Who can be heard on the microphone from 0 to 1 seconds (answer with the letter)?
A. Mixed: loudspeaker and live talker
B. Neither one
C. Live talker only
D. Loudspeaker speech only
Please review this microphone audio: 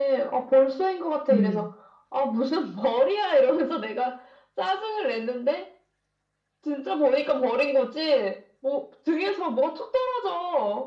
D